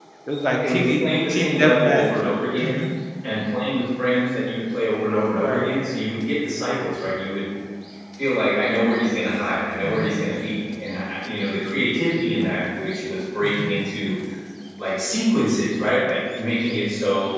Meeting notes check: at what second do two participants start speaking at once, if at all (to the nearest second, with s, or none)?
1 s